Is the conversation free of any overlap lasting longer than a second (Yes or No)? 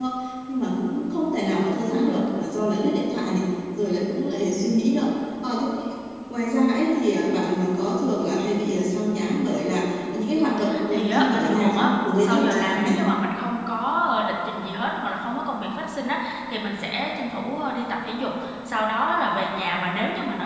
No